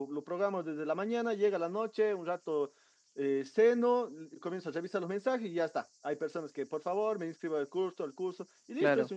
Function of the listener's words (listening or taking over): listening